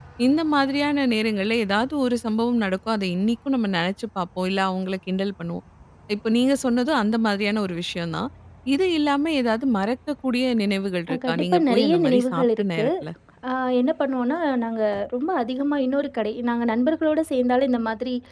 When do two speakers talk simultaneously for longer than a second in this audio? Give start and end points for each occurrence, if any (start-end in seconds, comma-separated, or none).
11.1-12.8